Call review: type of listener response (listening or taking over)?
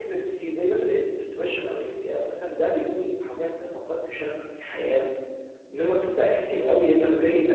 listening